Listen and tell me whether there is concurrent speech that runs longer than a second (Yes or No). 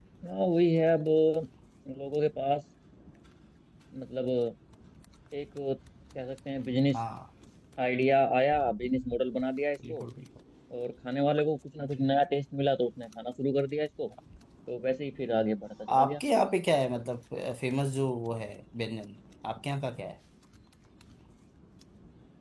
No